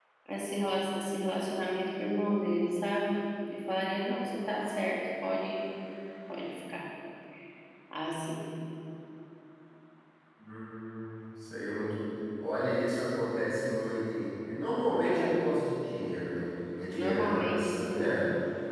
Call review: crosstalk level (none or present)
present